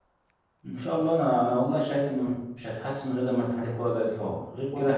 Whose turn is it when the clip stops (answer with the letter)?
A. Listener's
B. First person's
A